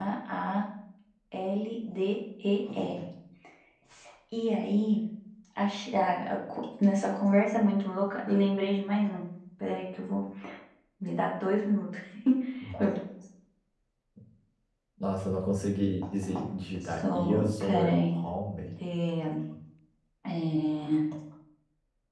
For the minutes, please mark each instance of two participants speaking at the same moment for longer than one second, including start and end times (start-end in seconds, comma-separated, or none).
16.8-18.1